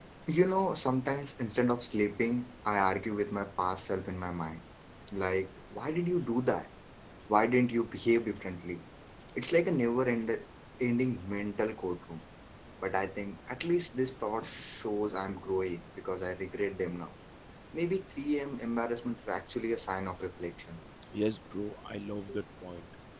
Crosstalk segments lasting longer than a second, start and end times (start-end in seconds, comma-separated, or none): none